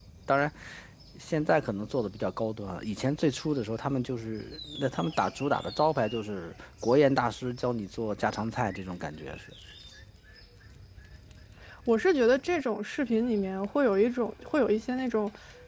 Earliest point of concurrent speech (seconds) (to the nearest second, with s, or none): none